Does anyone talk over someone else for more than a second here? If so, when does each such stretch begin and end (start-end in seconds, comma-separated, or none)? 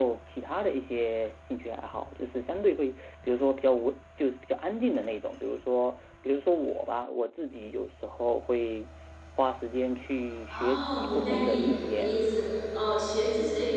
10.5-12.3